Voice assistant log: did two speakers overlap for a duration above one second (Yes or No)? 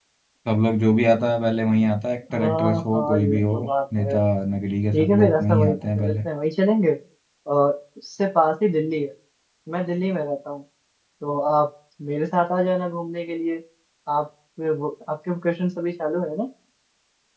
Yes